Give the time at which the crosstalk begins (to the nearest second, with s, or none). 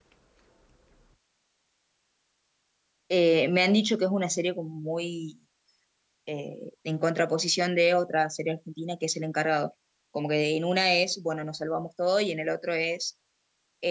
none